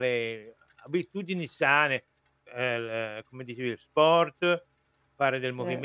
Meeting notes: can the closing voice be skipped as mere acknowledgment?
Yes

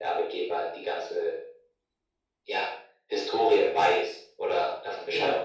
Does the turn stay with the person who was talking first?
No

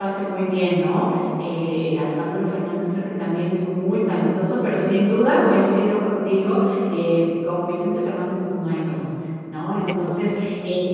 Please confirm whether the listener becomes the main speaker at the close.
No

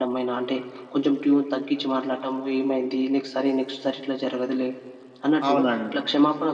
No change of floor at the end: Yes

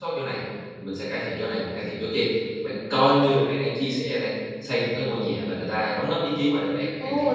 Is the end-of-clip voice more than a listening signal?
Yes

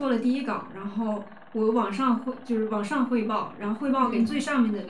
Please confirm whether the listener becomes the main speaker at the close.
No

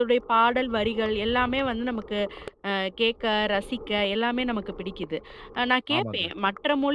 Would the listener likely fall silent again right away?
Yes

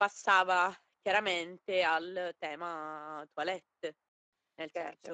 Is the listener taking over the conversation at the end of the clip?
No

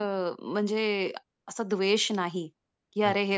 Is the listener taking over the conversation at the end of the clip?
No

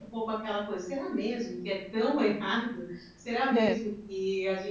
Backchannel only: Yes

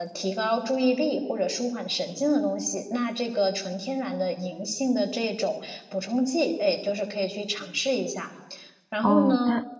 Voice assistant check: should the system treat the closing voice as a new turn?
Yes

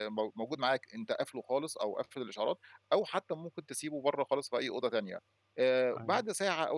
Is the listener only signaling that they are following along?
Yes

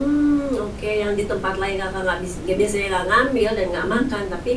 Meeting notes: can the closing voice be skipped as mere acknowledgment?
Yes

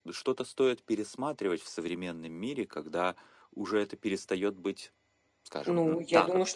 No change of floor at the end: No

